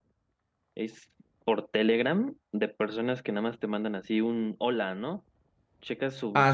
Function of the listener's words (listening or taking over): listening